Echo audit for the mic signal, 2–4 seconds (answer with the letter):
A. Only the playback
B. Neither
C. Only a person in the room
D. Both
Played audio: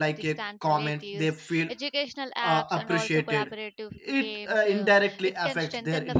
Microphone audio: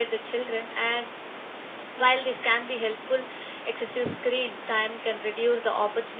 C